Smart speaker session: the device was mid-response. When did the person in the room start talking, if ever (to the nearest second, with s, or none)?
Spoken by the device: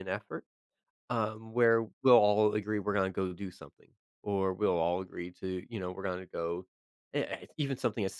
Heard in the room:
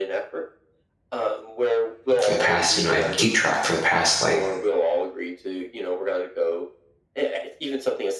2 s